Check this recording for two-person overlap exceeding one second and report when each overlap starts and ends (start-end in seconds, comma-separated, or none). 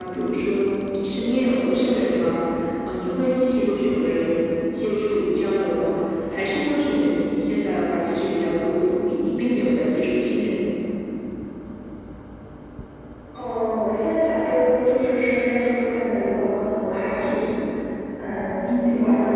none